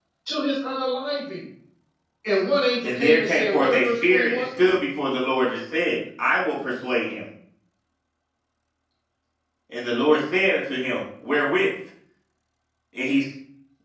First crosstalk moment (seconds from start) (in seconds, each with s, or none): 2.8 s